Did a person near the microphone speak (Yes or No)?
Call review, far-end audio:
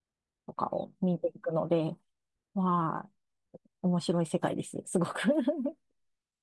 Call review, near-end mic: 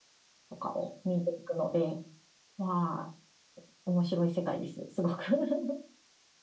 No